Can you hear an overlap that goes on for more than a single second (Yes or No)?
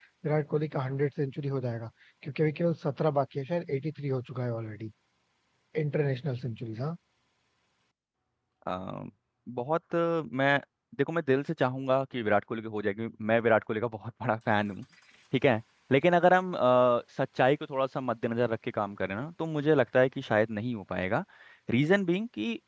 No